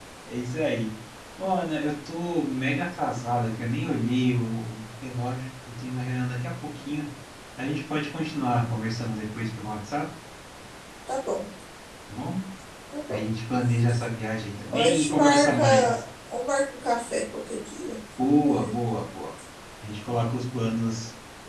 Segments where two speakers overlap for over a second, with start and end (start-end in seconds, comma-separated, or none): 14.7-16.0